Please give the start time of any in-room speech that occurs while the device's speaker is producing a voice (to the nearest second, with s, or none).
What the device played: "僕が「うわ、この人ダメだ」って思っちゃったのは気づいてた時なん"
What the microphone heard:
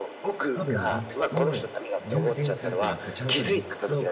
1 s